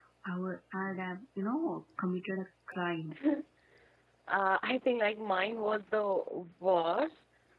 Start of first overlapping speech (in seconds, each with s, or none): none